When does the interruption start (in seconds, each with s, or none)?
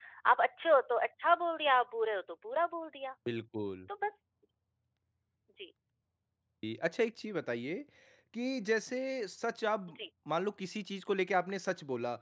none